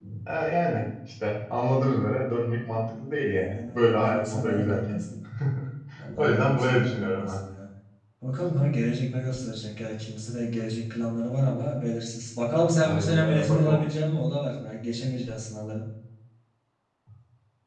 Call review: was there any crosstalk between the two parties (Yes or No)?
Yes